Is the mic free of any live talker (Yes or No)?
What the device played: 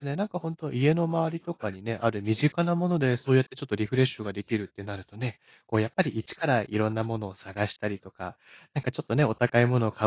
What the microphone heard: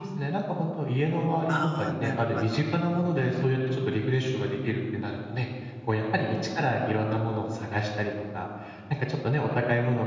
No